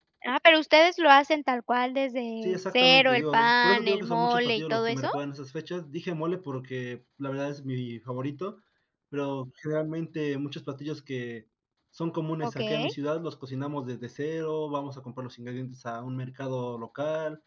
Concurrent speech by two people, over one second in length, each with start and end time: 2.4-5.1

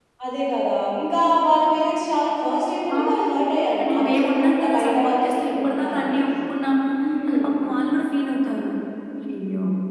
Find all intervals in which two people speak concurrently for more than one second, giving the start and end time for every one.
3.8-6.2

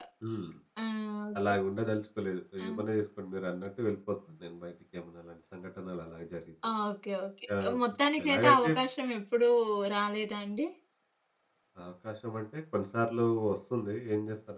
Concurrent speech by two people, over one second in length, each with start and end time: none

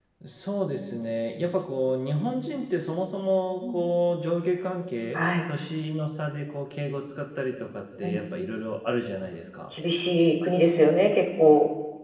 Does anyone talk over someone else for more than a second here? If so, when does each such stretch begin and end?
none

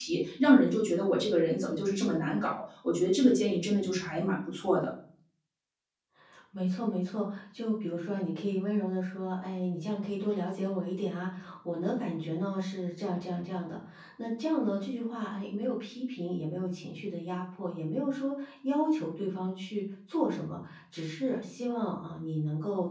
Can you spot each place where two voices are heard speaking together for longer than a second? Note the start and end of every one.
none

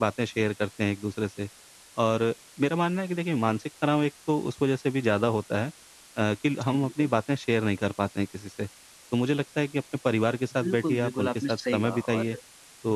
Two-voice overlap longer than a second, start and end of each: 10.6-12.3

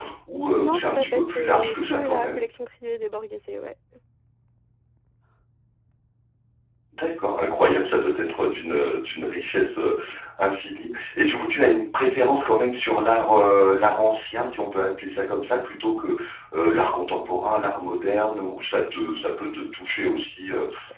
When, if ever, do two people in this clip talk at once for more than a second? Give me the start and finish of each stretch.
0.6-2.4

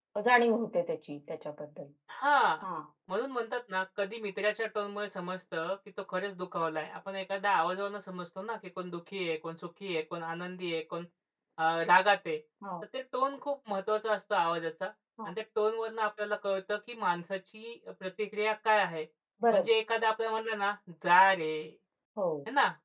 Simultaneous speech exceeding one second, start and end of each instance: none

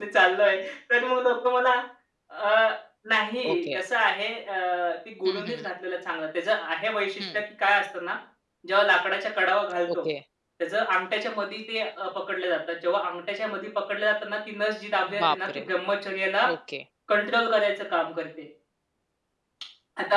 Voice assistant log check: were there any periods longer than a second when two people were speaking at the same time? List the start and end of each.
none

